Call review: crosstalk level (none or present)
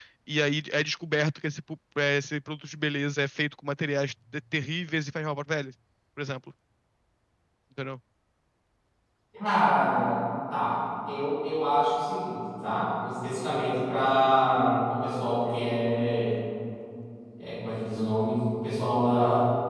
none